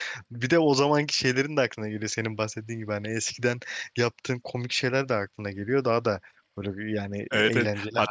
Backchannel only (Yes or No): No